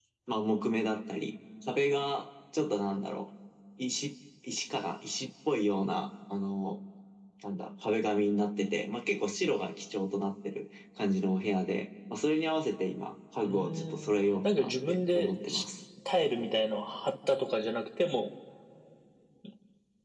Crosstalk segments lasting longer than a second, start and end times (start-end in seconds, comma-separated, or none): 13.4-15.6